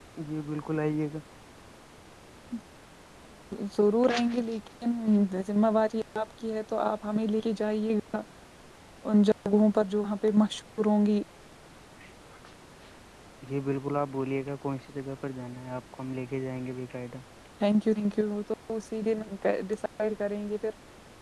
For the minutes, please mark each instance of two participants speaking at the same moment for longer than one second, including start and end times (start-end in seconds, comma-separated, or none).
none